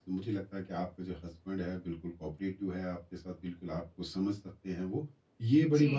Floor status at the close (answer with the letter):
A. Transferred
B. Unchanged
B